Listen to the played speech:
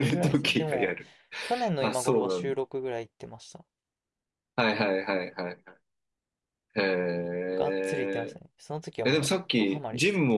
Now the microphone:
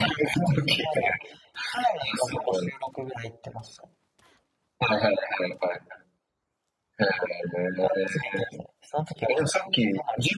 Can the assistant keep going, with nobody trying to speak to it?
Yes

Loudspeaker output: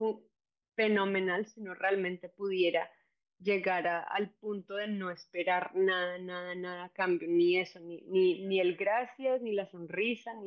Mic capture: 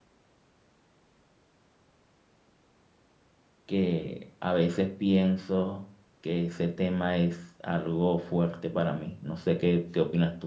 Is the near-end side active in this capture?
Yes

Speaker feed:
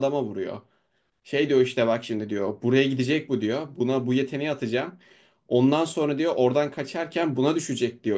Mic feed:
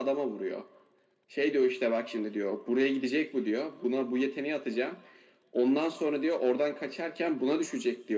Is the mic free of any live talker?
Yes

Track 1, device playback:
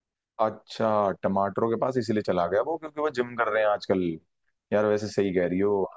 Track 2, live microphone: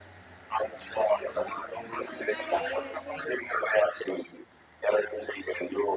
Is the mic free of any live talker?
No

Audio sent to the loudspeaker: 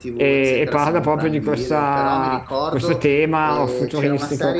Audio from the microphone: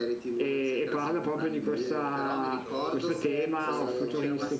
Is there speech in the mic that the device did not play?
Yes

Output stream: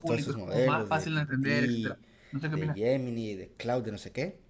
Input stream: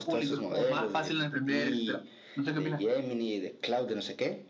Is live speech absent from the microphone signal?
Yes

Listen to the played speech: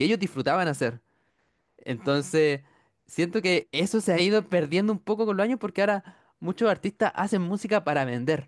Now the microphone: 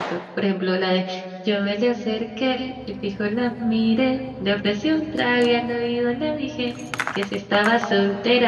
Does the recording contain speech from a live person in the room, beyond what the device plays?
Yes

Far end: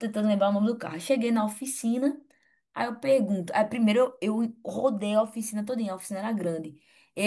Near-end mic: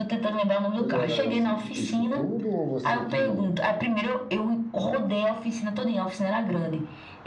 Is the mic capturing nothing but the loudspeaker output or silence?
No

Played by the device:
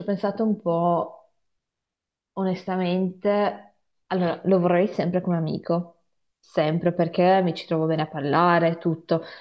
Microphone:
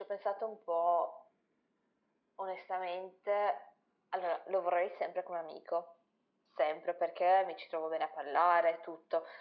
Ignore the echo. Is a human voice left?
No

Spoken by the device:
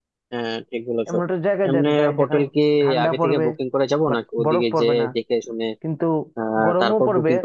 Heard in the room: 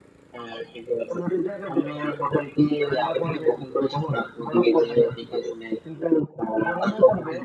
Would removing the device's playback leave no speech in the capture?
Yes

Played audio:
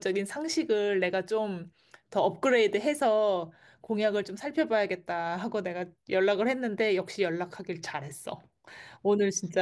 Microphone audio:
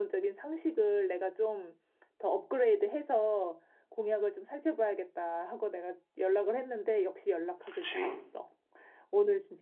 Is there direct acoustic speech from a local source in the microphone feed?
Yes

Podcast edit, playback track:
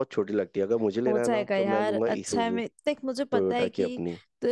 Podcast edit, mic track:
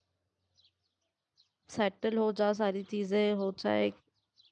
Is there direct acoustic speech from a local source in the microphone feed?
Yes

